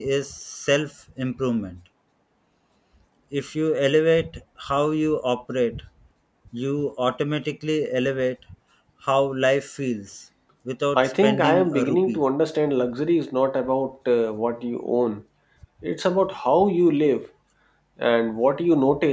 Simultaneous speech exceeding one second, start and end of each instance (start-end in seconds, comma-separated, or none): 10.9-12.2